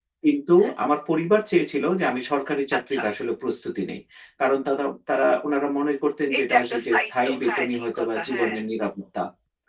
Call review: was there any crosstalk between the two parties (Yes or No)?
Yes